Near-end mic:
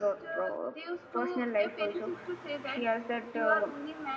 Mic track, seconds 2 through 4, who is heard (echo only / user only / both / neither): echo only